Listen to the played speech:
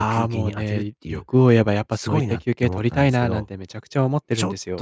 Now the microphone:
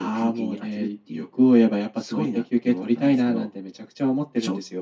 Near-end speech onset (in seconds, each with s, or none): none